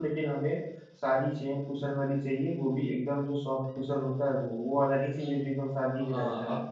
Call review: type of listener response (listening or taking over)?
taking over